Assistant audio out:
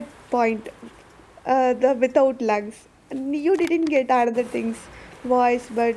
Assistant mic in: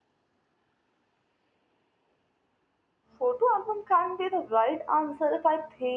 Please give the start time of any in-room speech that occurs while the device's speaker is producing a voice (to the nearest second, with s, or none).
3 s